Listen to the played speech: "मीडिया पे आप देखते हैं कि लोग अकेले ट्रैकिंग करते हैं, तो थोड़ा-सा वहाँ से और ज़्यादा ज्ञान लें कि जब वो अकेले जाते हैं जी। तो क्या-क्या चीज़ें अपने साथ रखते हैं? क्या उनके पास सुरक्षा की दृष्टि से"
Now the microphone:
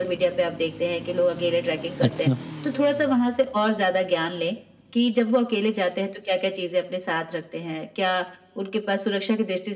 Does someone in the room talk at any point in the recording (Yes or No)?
Yes